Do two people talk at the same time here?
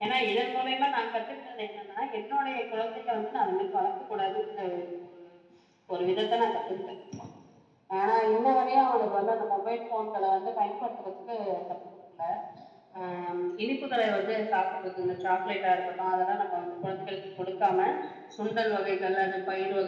No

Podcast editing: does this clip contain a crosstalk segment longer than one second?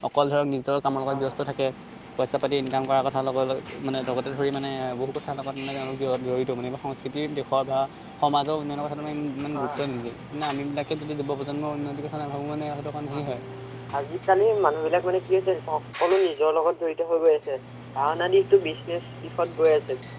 No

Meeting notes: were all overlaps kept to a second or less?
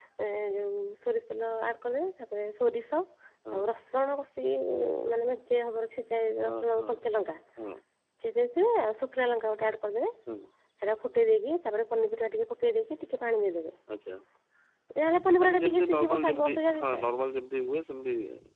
No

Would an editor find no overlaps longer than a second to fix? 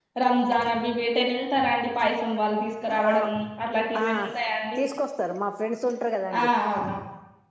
Yes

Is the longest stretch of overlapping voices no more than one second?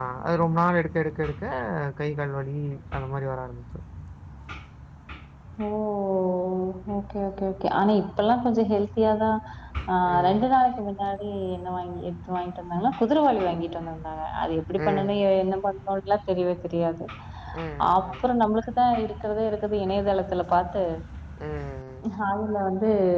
Yes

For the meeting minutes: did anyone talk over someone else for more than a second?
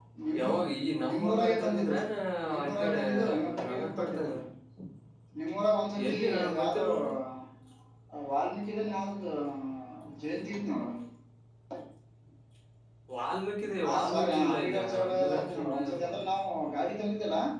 Yes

